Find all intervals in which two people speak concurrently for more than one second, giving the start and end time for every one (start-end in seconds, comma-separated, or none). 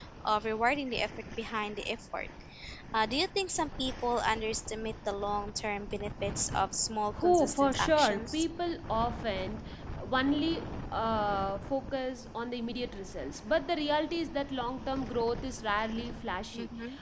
7.2-8.4